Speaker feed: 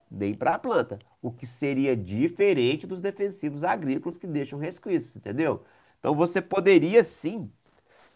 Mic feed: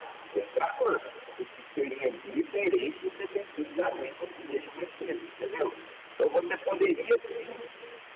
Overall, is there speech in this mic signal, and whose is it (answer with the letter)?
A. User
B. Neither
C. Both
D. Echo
D